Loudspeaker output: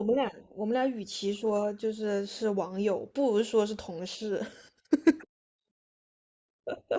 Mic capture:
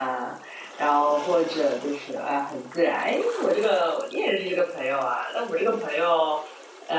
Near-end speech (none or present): present